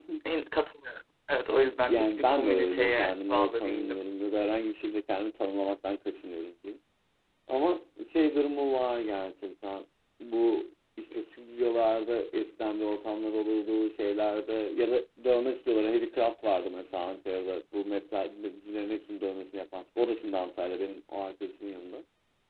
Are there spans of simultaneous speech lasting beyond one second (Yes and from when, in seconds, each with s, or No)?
Yes, from 1.5 s